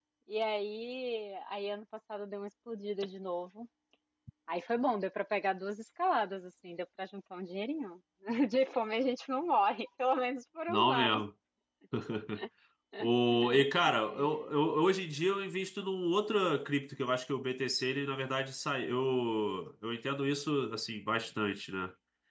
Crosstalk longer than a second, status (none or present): none